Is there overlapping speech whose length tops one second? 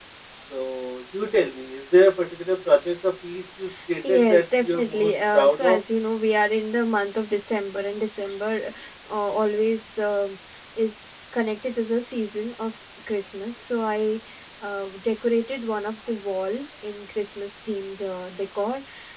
Yes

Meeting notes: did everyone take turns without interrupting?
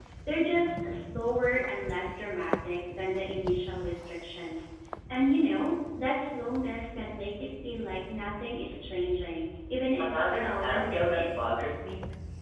No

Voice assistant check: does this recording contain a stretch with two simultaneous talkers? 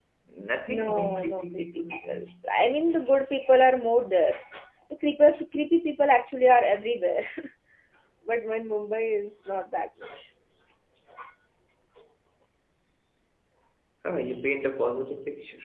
Yes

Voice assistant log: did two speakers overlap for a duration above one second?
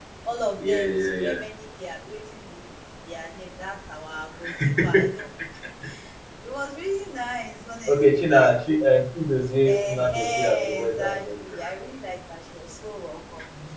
Yes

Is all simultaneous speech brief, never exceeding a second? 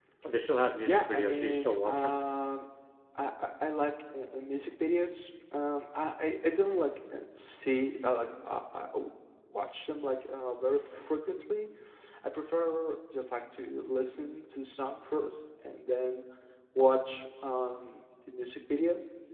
No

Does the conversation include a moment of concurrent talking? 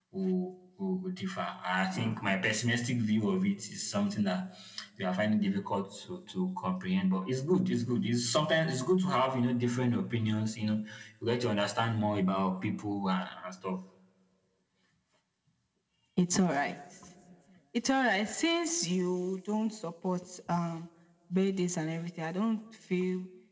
No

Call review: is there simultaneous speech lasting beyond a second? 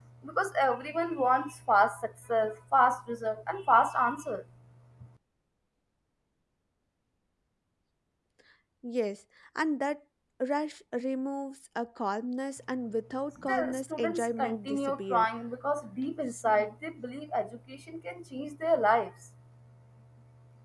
Yes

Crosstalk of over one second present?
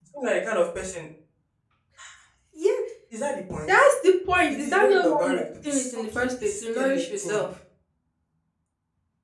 Yes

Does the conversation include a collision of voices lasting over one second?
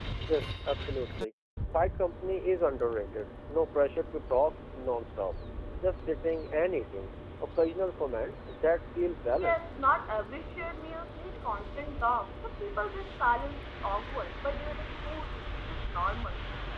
No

